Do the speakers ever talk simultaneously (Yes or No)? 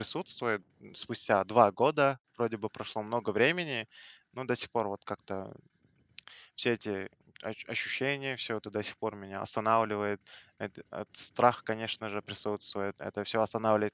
No